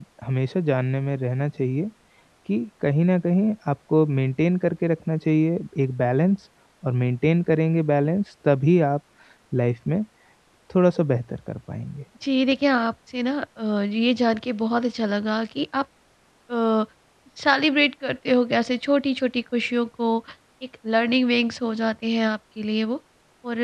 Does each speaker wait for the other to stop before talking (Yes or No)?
Yes